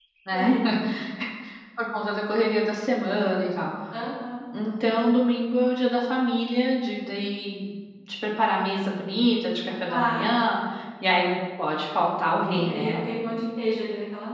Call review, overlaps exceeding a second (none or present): none